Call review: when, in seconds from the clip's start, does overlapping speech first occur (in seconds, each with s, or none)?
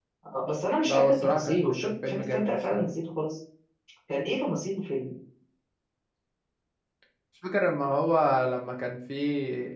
0.9 s